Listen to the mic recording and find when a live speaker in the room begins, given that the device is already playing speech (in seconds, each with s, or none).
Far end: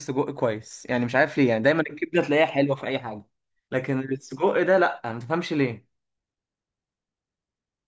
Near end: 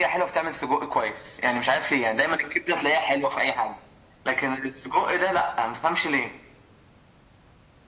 none